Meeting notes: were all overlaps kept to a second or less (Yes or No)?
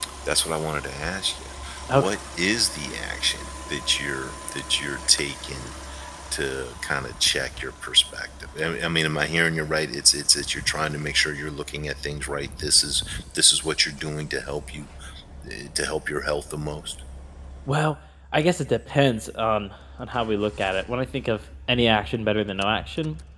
Yes